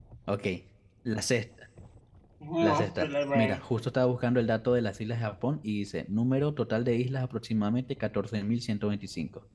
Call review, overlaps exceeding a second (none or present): present